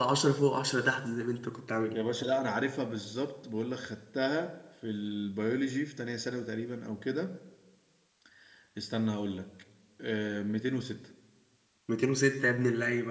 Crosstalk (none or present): none